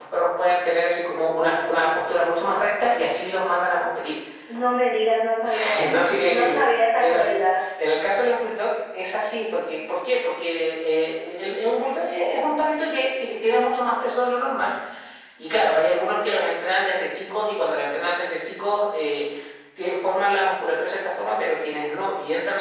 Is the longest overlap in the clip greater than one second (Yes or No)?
Yes